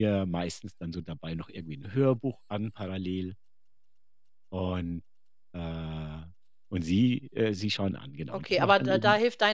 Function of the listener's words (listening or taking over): taking over